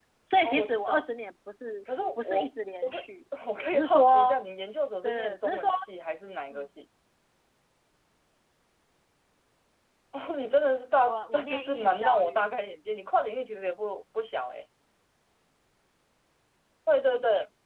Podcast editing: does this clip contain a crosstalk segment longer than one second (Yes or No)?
Yes